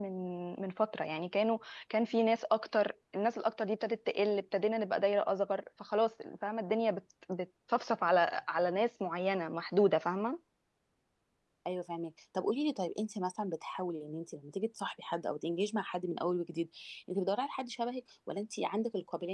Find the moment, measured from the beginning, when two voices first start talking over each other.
none

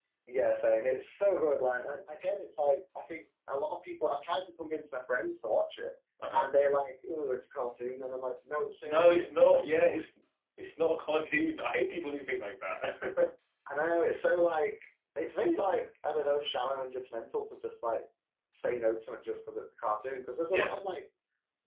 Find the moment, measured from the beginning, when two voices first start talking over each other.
9 s

